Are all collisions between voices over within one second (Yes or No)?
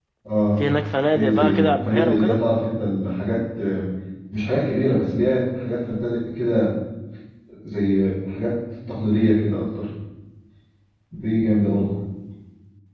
No